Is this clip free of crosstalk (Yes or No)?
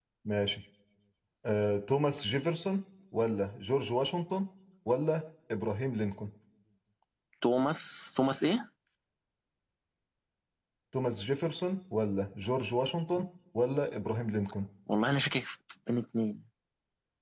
Yes